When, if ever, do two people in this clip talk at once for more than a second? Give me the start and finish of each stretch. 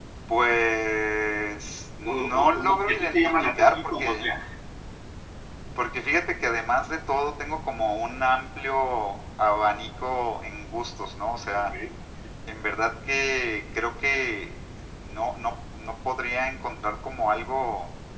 2.1-4.3

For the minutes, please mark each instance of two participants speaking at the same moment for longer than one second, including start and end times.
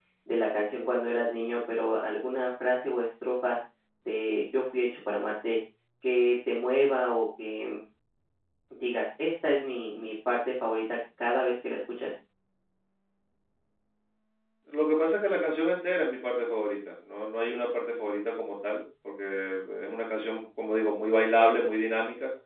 none

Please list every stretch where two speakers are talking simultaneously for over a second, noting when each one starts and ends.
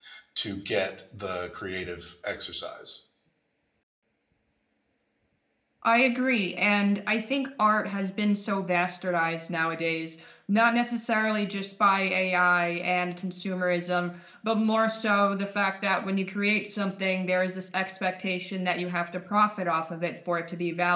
none

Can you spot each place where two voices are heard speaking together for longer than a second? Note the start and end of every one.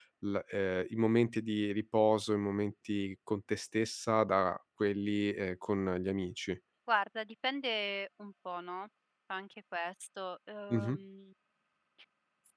none

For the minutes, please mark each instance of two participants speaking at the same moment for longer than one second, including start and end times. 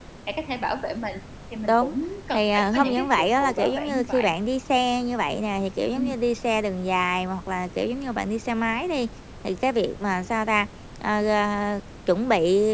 2.3-4.3

